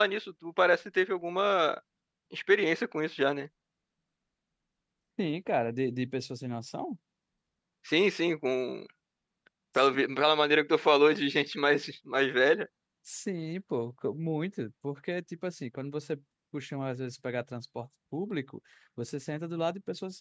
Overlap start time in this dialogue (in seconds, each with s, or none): none